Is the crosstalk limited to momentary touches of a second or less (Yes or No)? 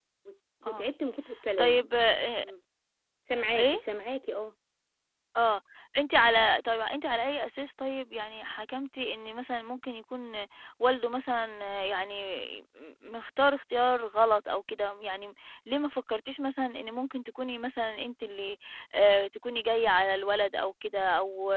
Yes